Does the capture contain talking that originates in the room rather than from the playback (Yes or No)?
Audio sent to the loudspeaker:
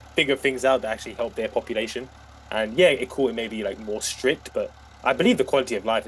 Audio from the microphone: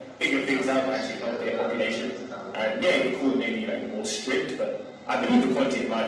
Yes